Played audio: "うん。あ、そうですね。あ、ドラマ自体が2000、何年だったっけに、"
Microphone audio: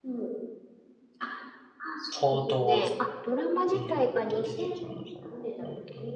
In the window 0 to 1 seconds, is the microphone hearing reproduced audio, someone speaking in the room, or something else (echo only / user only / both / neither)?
echo only